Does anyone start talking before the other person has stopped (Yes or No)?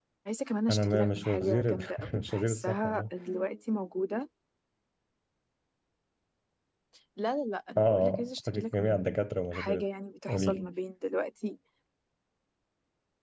Yes